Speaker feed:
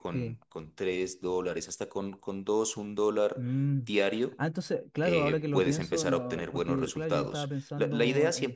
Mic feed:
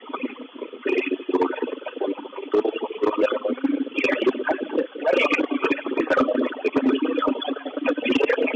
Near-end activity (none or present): none